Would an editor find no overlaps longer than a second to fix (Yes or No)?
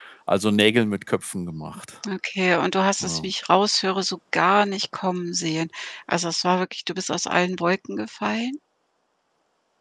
Yes